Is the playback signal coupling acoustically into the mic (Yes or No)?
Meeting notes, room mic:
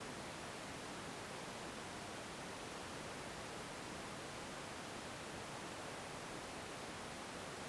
No